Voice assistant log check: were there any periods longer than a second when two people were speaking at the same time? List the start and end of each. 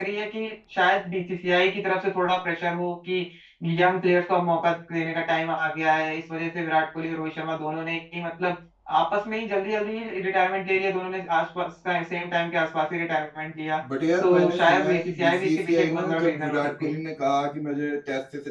14.2-17.0

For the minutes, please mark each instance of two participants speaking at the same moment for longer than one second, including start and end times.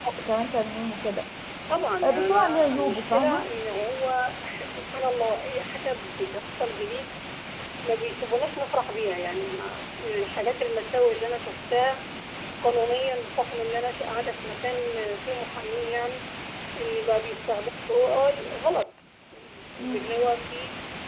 2.0-3.4

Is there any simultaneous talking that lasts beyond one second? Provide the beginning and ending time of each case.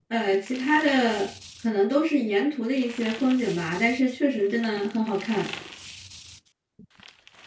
none

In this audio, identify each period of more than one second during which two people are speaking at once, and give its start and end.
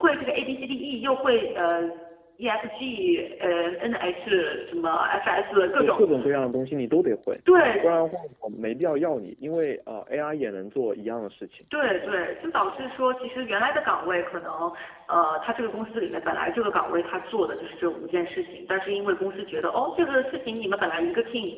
none

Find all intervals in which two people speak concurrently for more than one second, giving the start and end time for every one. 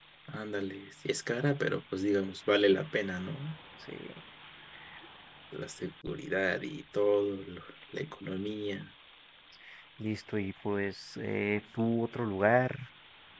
none

